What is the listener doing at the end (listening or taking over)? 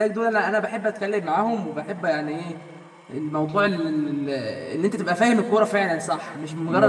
listening